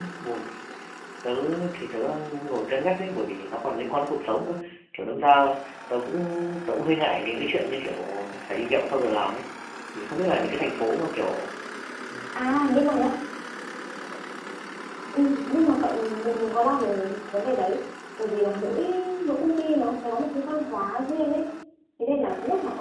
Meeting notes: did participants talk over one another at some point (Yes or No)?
No